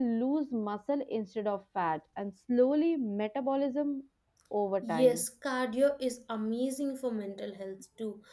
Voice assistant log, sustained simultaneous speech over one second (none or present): none